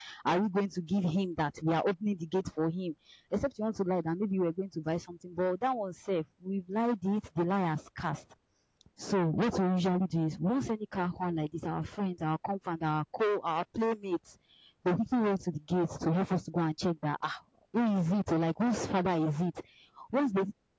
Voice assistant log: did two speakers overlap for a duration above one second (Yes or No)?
No